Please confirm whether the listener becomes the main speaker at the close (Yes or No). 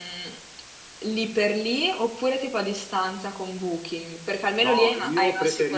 Yes